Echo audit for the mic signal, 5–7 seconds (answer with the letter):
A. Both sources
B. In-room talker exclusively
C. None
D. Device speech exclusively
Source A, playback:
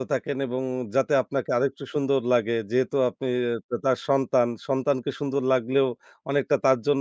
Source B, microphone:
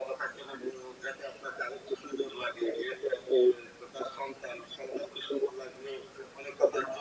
D